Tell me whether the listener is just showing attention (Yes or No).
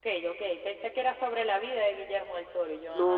No